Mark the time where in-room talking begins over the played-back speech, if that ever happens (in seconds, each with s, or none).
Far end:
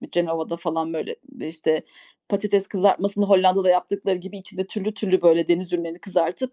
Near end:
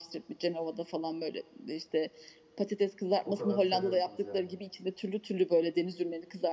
3.2 s